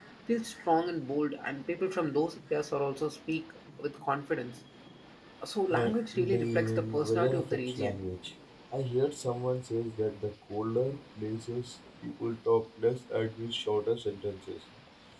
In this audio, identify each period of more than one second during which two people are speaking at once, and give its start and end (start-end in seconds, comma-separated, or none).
5.7-8.0